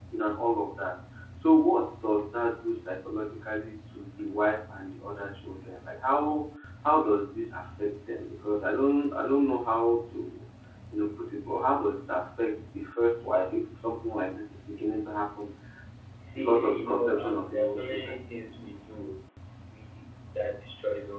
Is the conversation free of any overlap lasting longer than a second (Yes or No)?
No